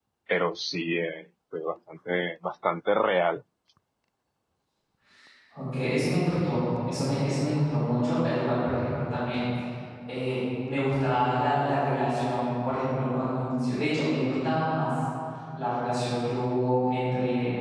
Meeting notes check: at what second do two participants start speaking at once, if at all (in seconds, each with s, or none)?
none